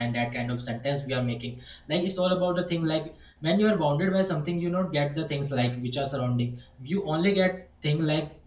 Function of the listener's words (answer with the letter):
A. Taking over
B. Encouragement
B